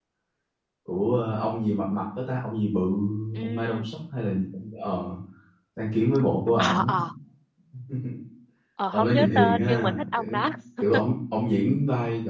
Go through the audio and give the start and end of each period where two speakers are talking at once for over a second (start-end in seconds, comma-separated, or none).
8.9-10.4